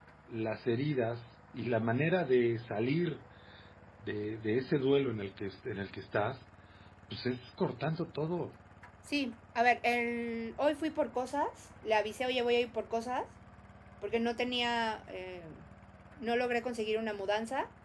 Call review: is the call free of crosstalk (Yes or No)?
Yes